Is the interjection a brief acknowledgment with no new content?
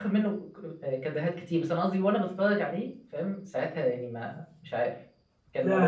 No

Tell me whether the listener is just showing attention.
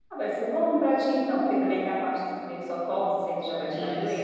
Yes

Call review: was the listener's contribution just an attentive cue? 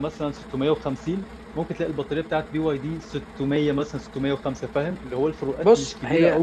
No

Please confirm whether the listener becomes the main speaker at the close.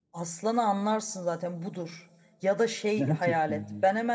No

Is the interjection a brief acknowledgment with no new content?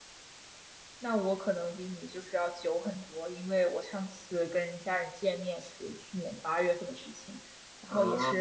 Yes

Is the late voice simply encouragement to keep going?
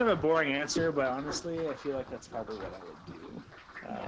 No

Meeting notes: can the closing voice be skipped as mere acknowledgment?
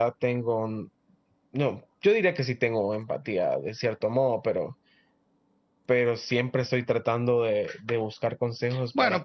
No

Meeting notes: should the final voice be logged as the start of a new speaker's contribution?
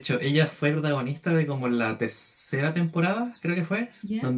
No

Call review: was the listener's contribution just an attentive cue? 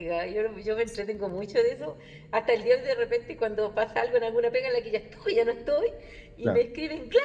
Yes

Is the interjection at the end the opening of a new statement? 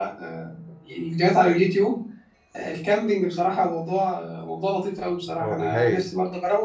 No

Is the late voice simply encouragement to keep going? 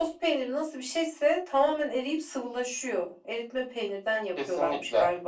No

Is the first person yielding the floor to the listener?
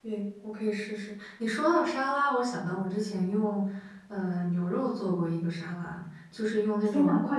Yes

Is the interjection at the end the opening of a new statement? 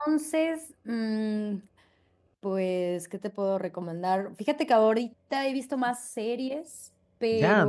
Yes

